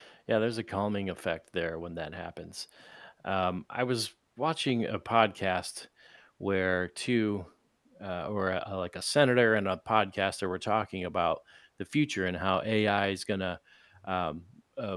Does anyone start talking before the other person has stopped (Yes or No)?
No